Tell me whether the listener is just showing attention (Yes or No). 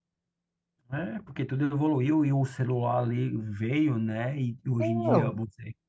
Yes